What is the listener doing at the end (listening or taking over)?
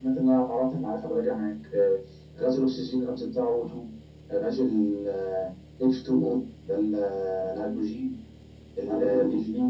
taking over